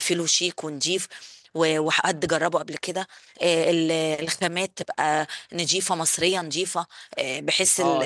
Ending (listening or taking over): taking over